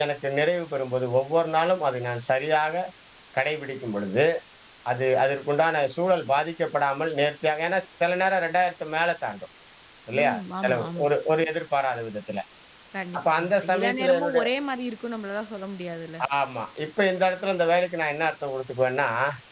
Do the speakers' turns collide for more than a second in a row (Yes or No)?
Yes